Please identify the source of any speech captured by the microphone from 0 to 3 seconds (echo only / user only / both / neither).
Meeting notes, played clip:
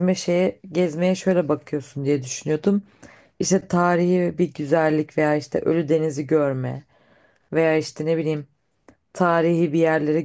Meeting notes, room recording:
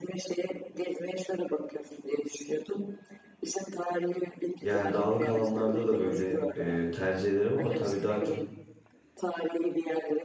echo only